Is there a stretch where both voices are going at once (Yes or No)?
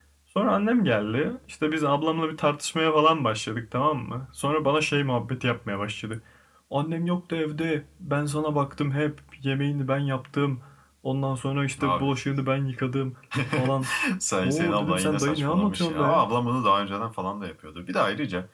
Yes